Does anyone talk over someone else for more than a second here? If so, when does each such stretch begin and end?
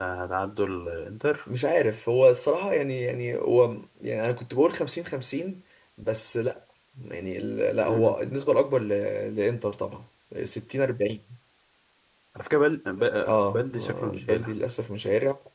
13.2-14.5

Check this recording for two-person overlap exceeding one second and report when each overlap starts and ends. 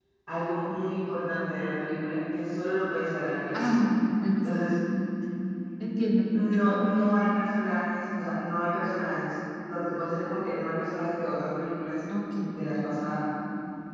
none

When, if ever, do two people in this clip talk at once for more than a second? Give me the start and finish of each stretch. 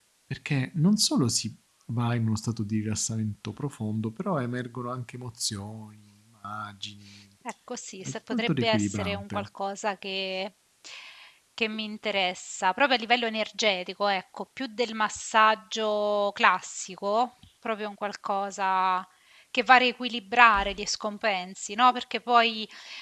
8.1-9.5

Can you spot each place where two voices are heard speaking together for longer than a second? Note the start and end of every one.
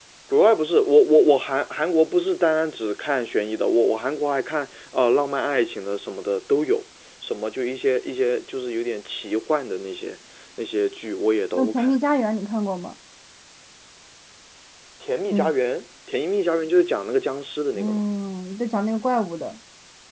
none

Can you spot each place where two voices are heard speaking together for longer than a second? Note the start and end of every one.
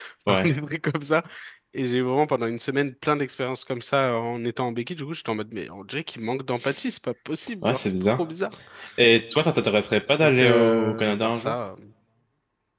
10.2-11.5

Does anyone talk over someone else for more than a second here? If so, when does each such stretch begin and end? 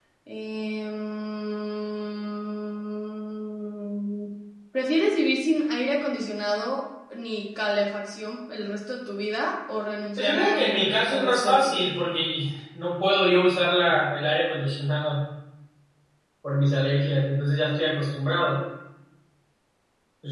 10.2-11.9

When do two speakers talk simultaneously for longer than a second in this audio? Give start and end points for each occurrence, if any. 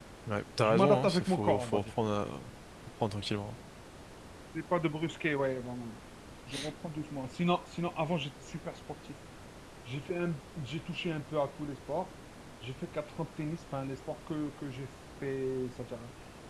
0.6-1.9

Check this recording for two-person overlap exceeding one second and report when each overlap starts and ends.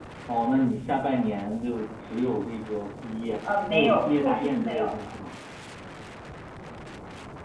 3.7-5.0

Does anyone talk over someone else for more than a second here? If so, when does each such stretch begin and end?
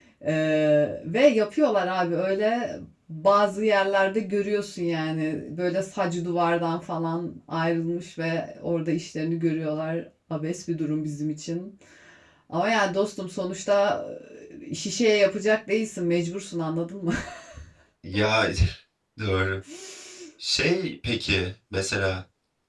none

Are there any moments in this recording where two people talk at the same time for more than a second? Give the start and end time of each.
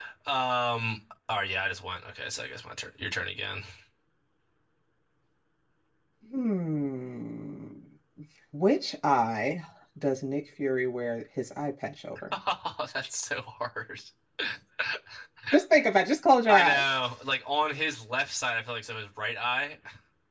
none

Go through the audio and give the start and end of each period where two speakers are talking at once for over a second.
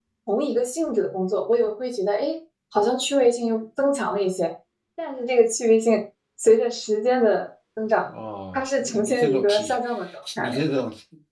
8.5-9.8

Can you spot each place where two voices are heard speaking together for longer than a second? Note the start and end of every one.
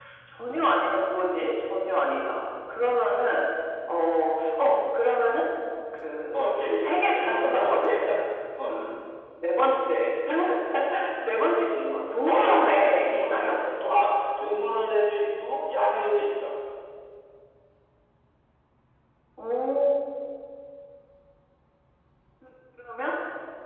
6.3-7.9, 12.2-13.6

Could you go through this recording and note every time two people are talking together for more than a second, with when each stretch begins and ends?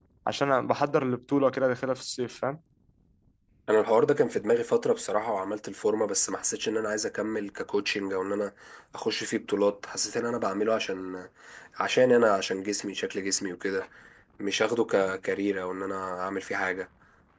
none

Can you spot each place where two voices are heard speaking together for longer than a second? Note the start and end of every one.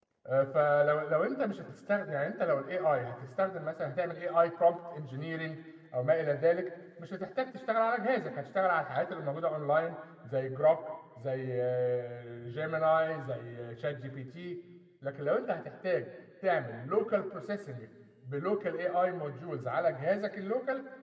none

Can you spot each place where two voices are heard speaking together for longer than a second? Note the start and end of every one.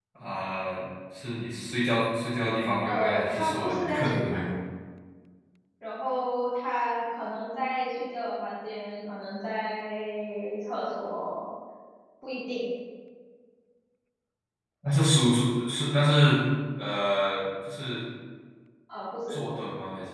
2.9-4.4

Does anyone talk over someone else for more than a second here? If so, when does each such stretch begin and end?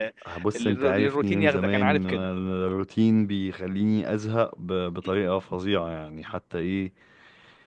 0.6-2.2

